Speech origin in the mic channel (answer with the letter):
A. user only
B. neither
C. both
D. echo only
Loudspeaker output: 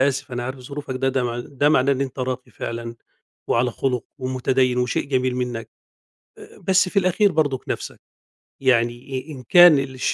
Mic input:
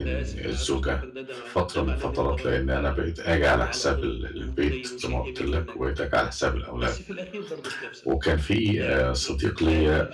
C